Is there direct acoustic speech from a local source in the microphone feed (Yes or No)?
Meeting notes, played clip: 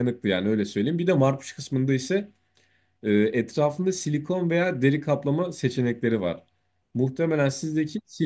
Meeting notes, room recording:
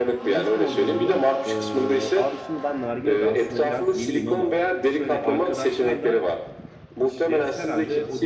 Yes